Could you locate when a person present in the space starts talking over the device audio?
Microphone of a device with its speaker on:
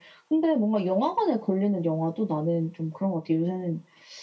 none

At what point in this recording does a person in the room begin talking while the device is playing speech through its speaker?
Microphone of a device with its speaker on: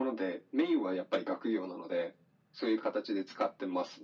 none

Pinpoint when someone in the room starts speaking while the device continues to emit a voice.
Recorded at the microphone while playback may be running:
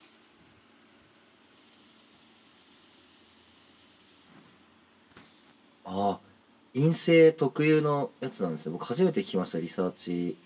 5.8 s

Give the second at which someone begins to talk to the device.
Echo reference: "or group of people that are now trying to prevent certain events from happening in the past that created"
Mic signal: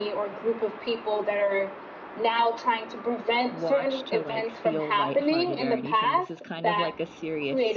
3.5 s

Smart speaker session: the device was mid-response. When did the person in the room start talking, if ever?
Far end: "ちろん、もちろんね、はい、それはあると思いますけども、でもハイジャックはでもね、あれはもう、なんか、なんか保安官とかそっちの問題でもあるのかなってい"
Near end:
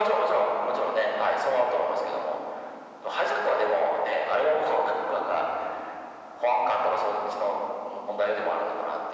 none

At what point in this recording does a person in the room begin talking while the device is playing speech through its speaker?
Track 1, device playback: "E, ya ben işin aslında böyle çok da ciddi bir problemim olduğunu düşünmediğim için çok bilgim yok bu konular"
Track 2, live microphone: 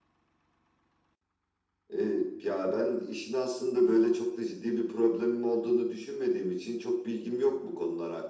none

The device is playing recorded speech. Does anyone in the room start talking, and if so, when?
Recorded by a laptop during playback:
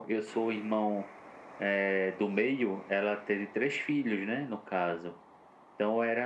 none

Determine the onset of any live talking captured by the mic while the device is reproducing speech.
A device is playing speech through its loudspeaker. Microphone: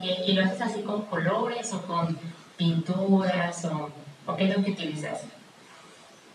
none

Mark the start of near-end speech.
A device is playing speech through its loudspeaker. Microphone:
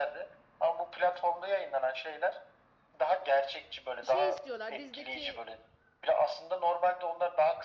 4.0 s

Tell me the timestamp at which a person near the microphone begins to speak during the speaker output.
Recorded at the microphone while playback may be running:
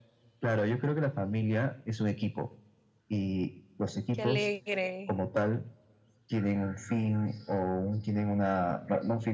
4.1 s

